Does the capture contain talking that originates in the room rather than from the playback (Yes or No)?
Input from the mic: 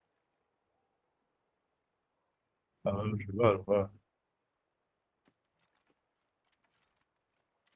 Yes